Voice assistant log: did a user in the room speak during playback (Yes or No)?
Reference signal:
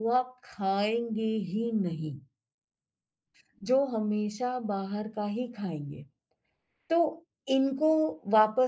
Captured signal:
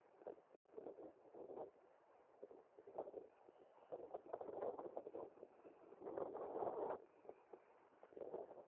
No